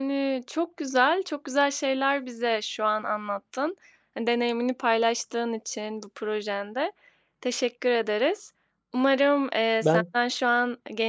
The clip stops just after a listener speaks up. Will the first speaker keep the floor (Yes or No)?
Yes